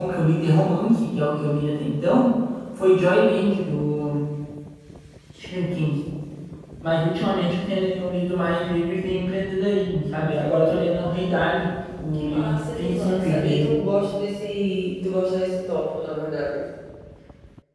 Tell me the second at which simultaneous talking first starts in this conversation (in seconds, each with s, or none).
12.1 s